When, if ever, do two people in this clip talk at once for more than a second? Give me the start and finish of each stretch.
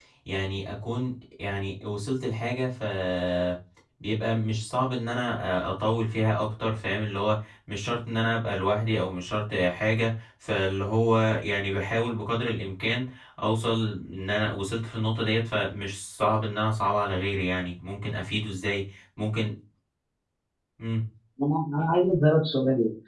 none

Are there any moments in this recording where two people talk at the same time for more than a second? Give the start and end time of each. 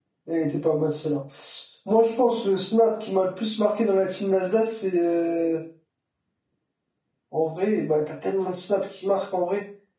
none

